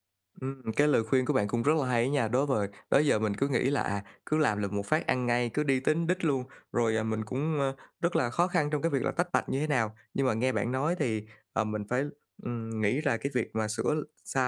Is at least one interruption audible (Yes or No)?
No